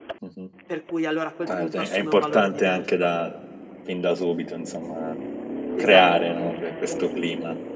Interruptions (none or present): present